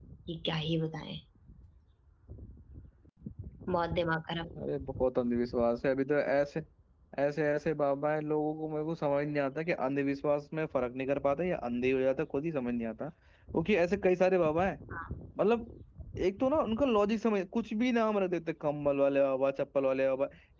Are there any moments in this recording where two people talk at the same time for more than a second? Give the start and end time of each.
none

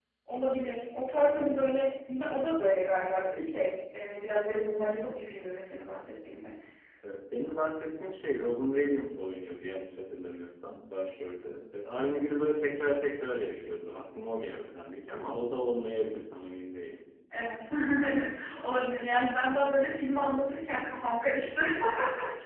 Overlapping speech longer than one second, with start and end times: none

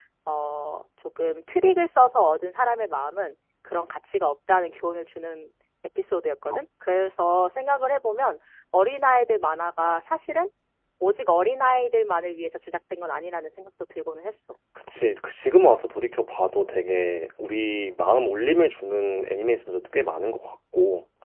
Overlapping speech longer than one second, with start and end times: none

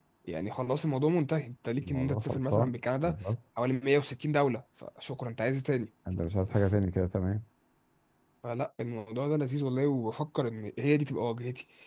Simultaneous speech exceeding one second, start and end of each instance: 1.8-3.1

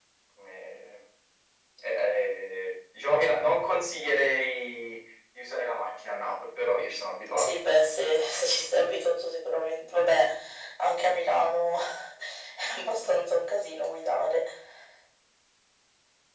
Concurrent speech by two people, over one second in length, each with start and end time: none

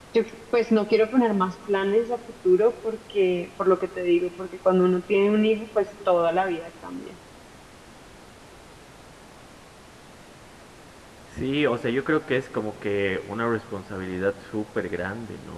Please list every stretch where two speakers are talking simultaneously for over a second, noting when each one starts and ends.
none

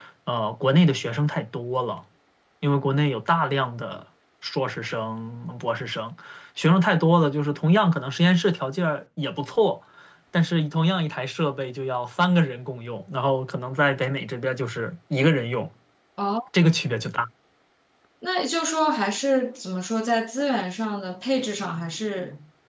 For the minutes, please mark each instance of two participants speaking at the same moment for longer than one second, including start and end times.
none

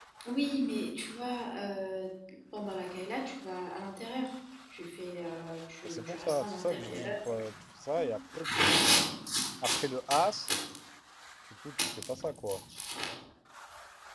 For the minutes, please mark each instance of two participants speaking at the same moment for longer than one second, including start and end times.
5.8-7.4

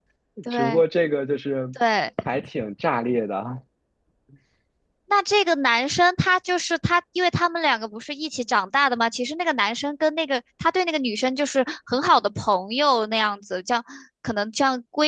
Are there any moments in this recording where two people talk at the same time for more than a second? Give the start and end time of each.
none

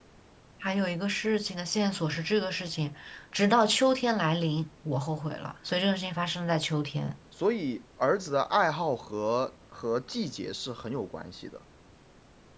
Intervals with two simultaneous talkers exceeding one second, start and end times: none

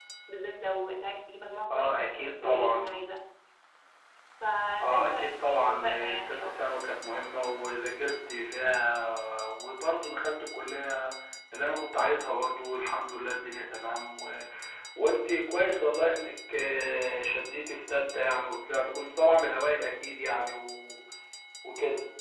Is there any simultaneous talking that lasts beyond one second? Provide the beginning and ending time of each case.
1.7-3.0, 4.8-6.5

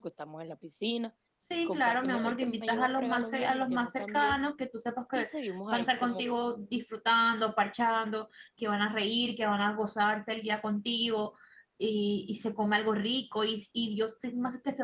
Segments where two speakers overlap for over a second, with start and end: 1.6-4.4

